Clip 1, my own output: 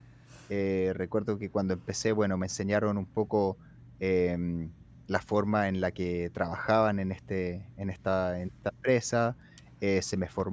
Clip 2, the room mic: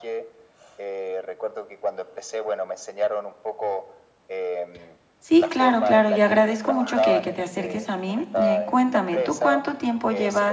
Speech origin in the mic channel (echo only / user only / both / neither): both